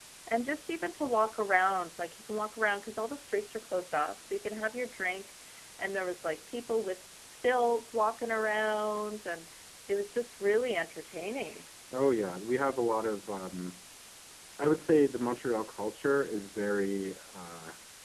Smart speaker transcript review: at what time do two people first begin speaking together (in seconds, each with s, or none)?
none